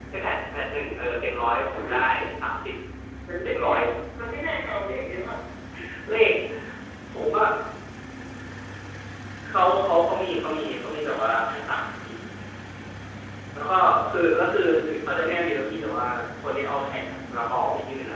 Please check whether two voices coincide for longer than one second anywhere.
No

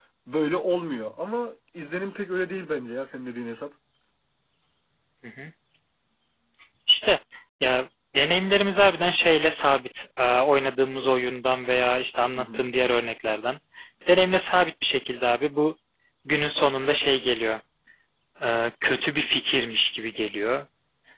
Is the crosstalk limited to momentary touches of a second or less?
Yes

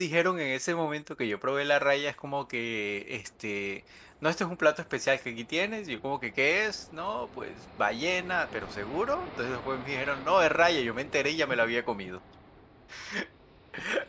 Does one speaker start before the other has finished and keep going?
No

